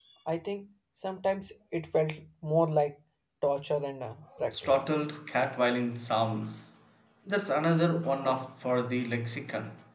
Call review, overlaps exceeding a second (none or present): none